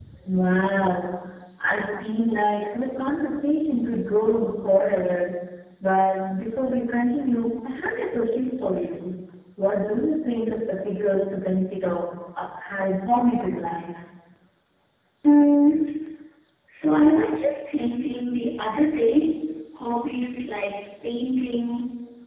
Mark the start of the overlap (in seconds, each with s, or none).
none